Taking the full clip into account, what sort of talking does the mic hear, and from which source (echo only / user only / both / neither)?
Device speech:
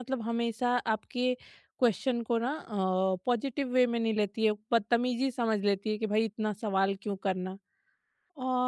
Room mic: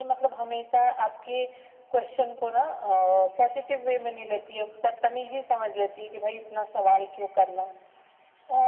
echo only